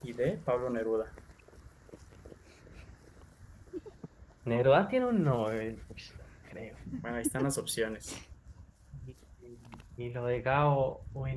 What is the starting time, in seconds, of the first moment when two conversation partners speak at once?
none

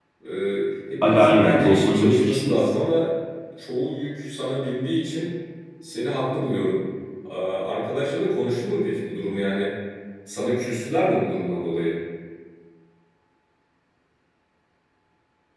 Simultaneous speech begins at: 1.0 s

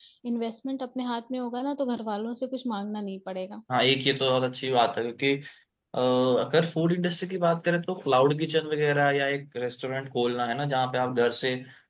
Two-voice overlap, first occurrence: none

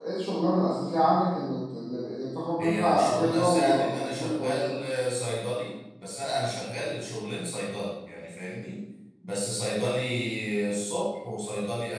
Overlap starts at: 2.6 s

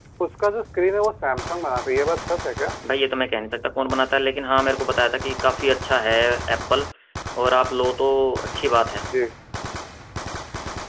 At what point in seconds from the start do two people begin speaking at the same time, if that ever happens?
none

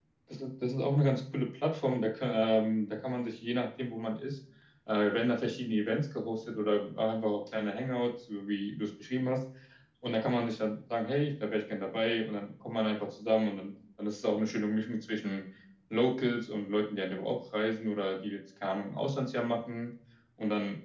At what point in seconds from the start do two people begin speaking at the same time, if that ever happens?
none

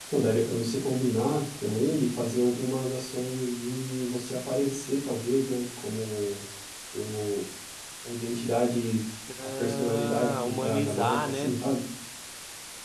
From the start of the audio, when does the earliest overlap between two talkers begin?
9.6 s

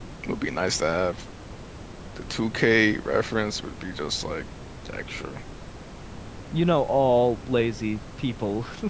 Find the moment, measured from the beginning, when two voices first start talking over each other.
none

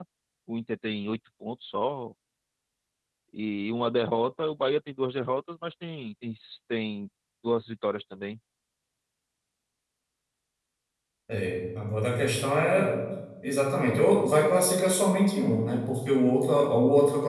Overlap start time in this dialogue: none

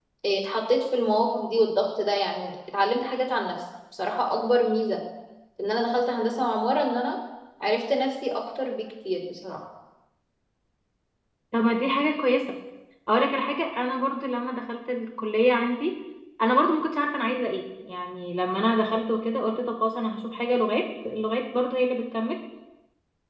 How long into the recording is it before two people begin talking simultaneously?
none

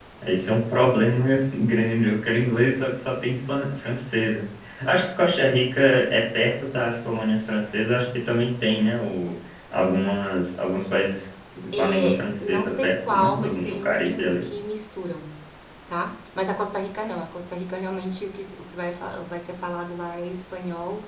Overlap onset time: 11.7 s

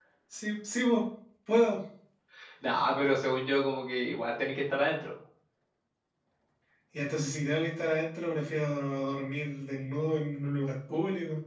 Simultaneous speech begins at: none

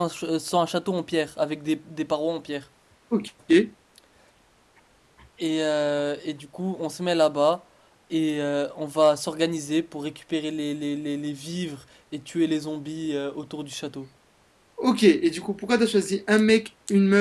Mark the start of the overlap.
none

